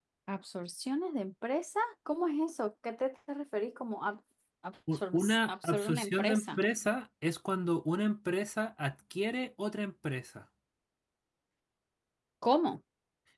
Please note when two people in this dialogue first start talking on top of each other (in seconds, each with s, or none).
4.9 s